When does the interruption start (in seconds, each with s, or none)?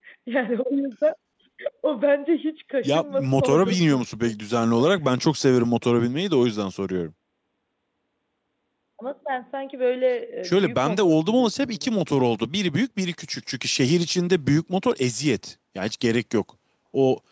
2.8 s